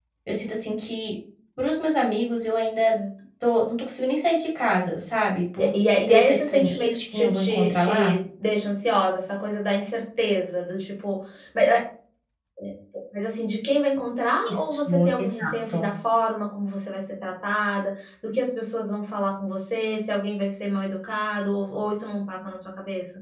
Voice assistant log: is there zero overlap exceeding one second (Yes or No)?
No